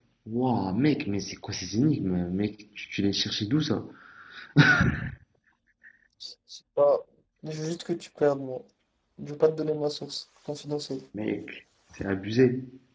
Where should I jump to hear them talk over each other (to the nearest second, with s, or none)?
none